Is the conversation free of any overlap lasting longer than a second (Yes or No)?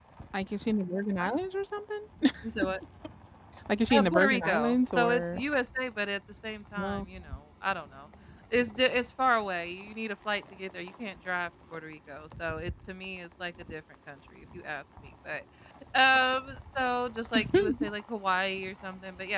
No